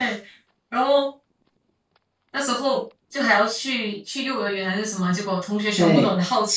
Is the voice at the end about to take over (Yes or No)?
No